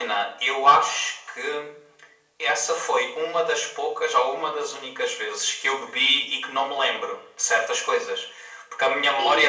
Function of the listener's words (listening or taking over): taking over